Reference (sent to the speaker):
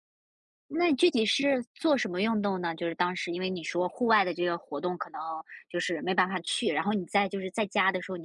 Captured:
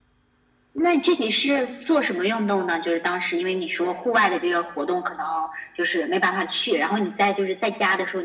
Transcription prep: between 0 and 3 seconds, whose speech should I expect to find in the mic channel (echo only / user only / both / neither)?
echo only